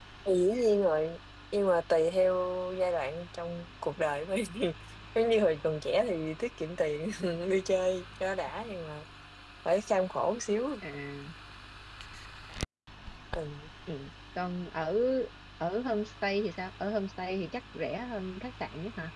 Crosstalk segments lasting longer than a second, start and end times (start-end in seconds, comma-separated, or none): none